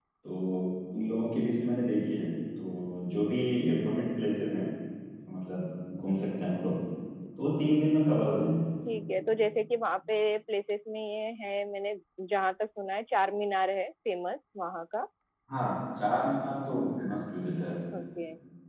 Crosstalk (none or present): none